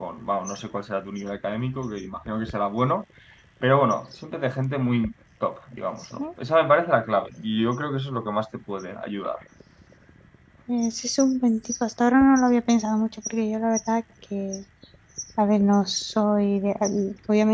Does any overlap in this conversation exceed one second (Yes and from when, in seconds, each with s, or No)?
No